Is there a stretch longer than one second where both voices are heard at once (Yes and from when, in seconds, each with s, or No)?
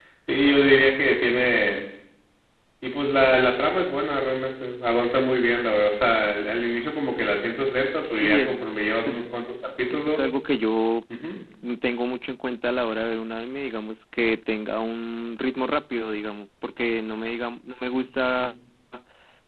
No